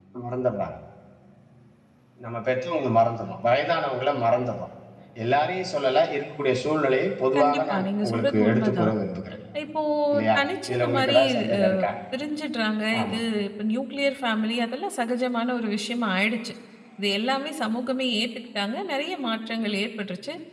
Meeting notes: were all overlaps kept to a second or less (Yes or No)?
No